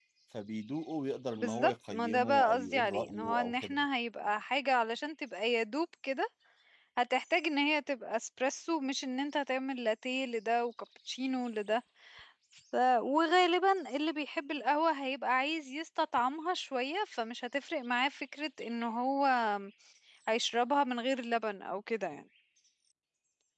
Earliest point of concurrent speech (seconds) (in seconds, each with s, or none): 1.4 s